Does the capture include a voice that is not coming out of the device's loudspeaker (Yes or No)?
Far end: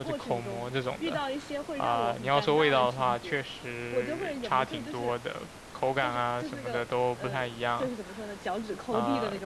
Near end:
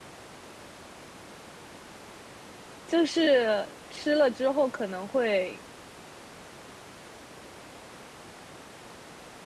Yes